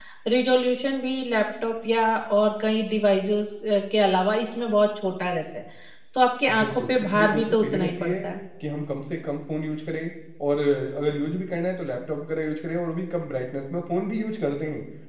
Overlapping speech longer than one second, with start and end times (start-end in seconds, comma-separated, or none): 6.6-8.3